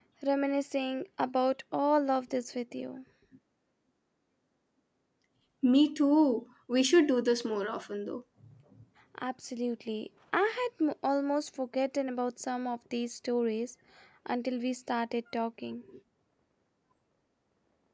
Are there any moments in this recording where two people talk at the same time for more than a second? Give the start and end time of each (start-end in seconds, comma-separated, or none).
none